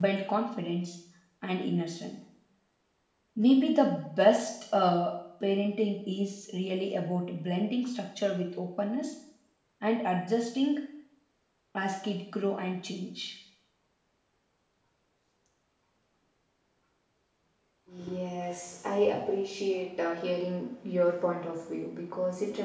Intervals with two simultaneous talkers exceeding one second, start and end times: none

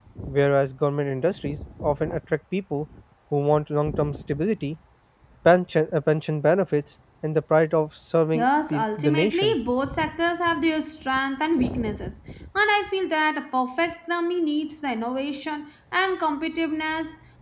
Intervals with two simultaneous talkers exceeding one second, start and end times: 8.3-9.6

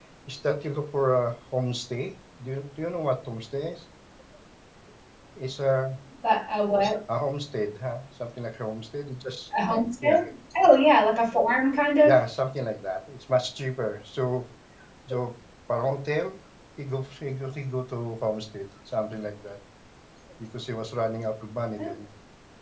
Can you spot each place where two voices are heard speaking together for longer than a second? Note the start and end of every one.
none

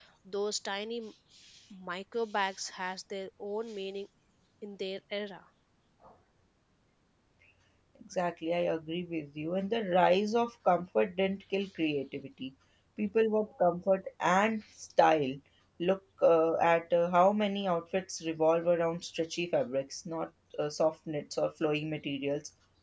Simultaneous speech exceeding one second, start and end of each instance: none

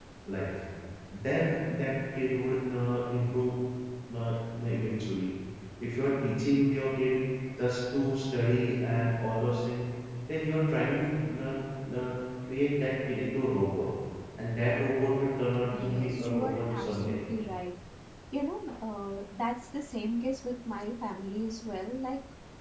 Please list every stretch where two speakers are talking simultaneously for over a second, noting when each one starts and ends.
15.7-17.2

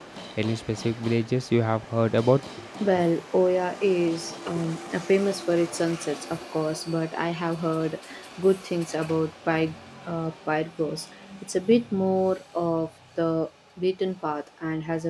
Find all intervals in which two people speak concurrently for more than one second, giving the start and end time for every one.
none

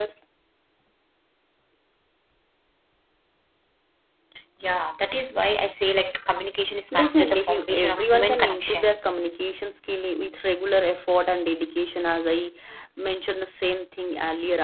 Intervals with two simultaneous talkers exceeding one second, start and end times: 6.9-8.9

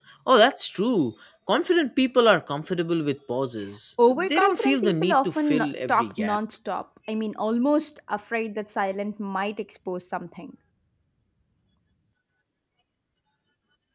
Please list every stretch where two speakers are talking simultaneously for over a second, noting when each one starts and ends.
4.1-6.4

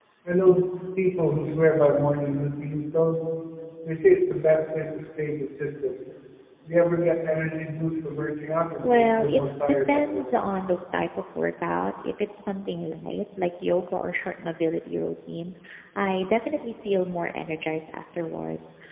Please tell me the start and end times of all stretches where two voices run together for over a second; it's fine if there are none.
8.8-10.4

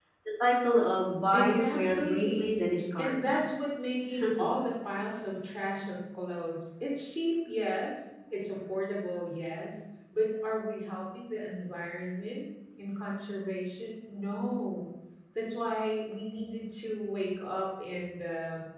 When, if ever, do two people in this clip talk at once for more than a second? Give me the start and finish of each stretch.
1.3-2.6

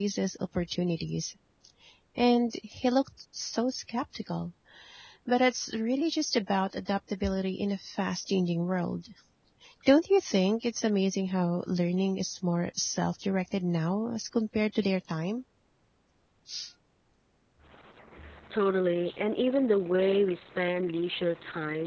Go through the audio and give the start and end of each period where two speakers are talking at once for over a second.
none

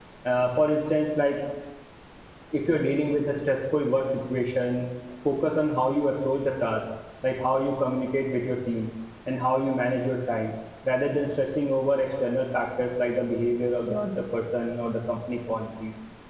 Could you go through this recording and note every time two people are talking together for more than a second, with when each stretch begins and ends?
none

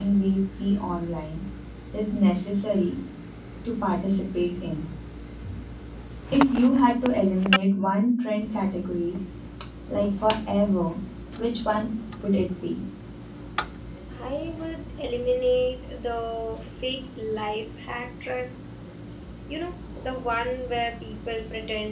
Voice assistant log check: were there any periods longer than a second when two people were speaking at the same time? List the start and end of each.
none

